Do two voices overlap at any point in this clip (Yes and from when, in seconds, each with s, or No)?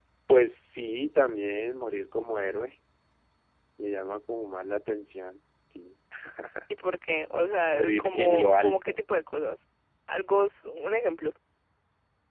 Yes, from 7.7 s